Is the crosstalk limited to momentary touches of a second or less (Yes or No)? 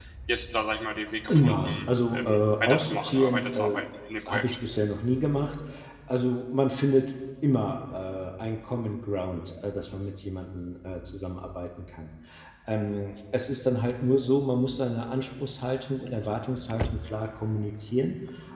No